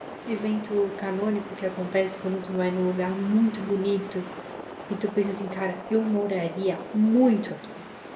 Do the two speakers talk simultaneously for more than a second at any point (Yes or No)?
No